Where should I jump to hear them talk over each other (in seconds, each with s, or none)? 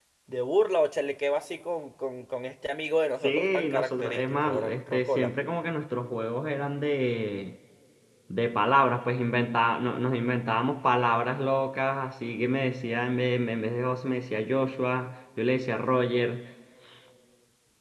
3.2 s